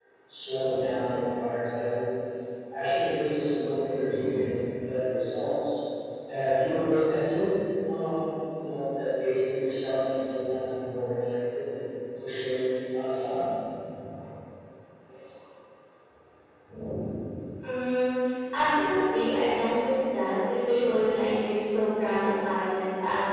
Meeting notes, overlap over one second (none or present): none